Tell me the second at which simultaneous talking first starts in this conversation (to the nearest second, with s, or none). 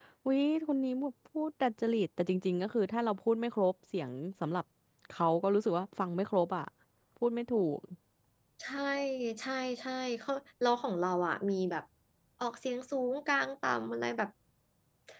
none